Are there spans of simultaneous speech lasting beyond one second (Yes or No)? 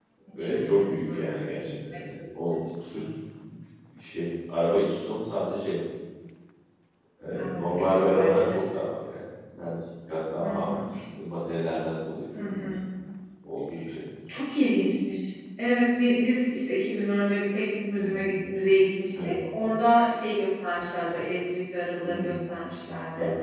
Yes